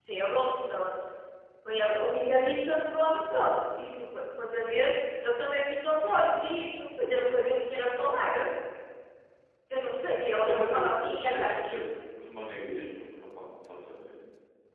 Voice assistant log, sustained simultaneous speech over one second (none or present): present